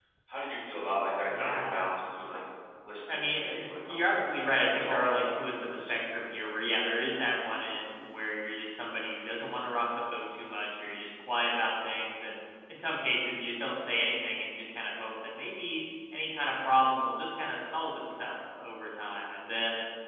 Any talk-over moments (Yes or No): Yes